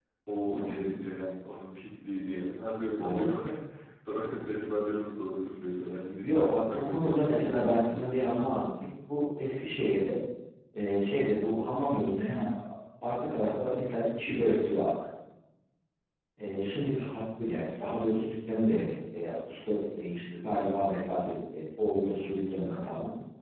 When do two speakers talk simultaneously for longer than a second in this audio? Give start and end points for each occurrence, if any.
6.2-8.1

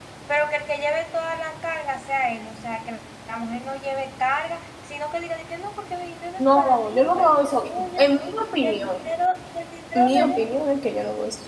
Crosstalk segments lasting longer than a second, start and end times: 6.4-8.1

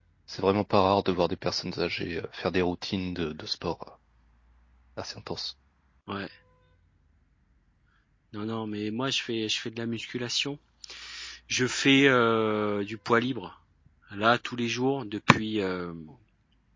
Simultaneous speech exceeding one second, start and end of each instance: none

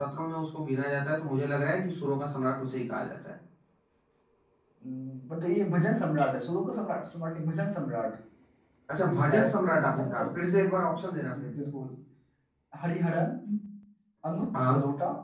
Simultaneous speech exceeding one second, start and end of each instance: 9.0-10.2

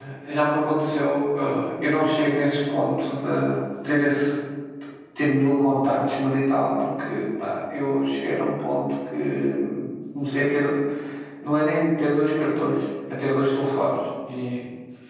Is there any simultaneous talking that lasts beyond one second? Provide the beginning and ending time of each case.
none

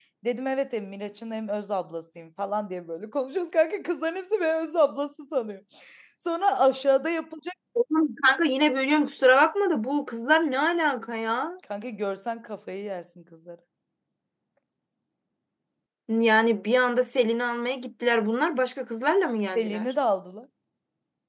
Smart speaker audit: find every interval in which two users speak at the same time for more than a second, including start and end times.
none

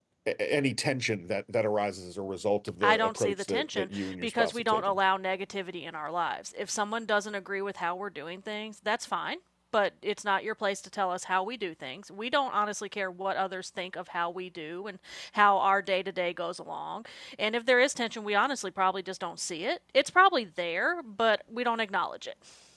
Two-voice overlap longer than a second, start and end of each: 2.8-4.9

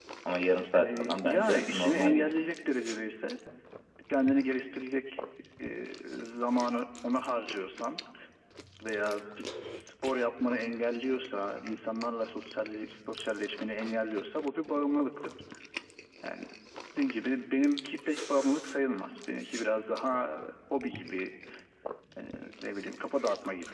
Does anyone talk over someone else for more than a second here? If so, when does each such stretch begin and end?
0.8-2.3

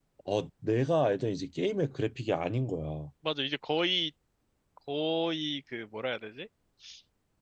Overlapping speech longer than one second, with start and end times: none

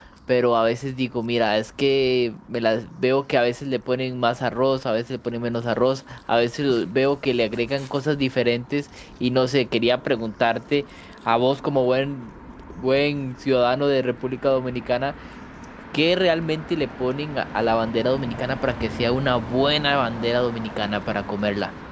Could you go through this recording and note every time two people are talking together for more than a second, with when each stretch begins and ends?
none

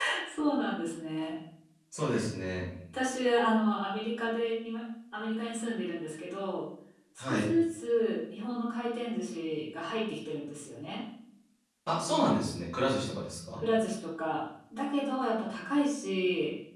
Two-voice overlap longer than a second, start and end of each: none

